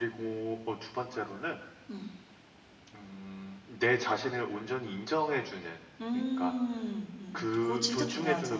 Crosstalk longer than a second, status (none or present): present